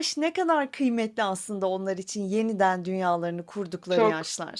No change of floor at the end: No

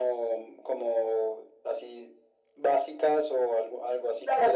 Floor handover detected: Yes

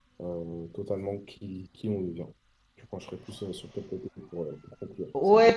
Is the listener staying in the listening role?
No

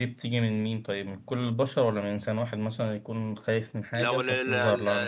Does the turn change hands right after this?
Yes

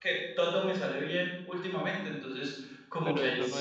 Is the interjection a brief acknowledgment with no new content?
No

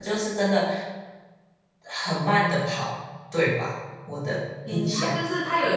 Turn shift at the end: Yes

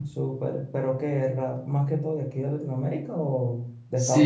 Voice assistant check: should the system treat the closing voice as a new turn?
Yes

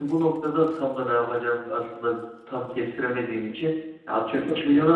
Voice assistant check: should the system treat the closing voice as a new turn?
No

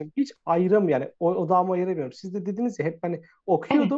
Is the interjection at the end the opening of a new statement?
No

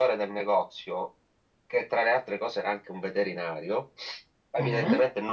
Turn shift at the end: No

